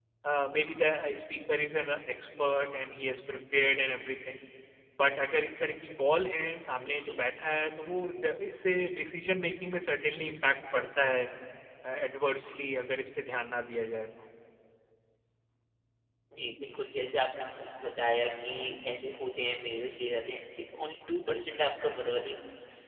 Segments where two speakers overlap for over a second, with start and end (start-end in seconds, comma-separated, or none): none